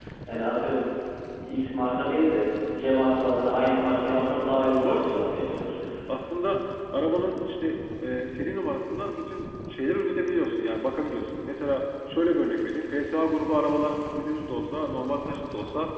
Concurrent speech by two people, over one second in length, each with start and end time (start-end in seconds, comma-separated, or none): none